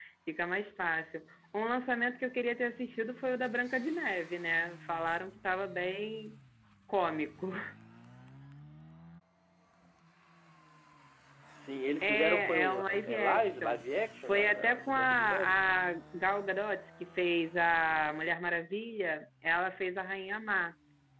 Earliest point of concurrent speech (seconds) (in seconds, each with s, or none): 12.0 s